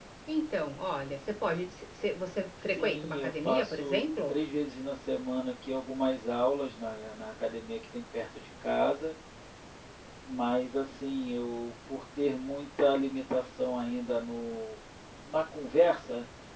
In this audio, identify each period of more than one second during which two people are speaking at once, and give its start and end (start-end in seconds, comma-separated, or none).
2.7-4.3